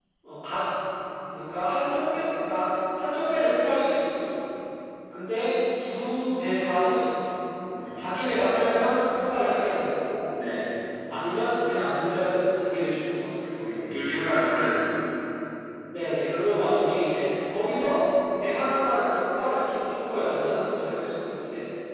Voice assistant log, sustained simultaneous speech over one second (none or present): none